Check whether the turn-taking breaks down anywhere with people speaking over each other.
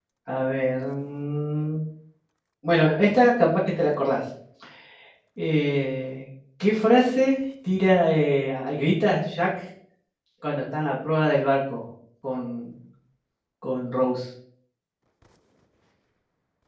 No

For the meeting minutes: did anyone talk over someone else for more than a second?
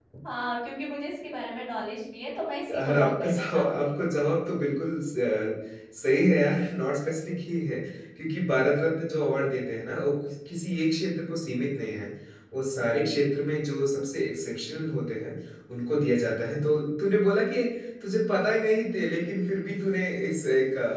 Yes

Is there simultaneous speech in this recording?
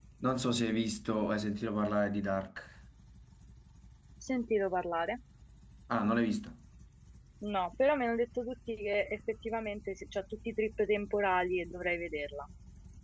No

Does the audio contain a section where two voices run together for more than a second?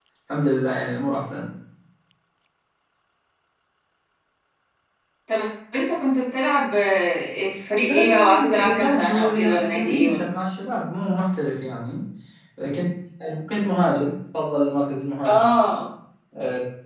Yes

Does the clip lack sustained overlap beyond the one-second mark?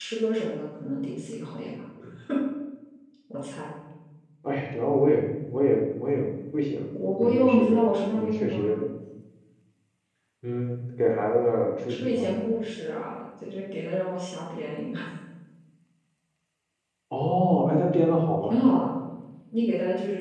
No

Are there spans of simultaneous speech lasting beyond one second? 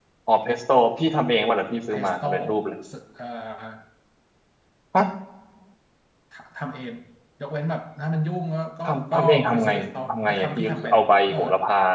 Yes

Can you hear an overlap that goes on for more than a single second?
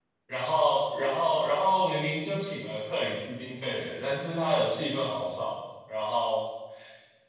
No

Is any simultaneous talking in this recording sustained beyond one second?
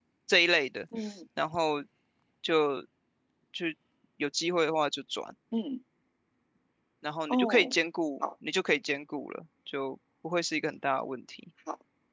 No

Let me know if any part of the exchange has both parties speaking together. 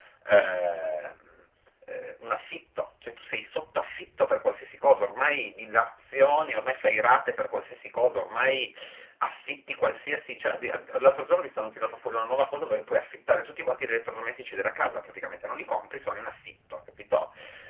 No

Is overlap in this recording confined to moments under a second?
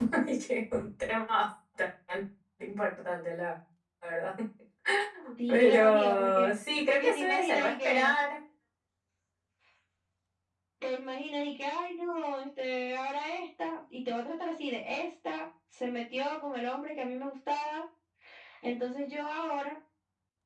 No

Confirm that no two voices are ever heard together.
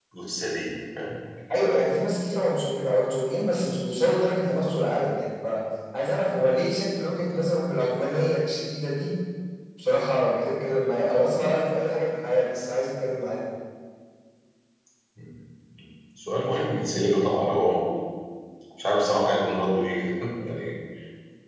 Yes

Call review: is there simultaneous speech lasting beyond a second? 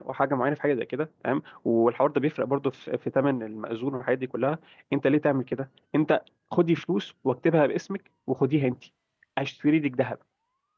No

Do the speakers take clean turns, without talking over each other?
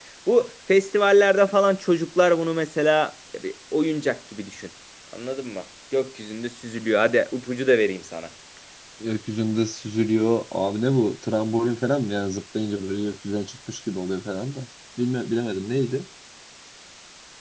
Yes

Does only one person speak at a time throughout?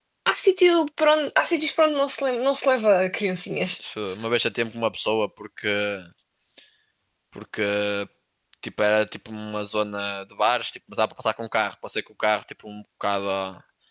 Yes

